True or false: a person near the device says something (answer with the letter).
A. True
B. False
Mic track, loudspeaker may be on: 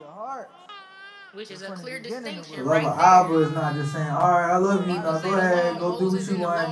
A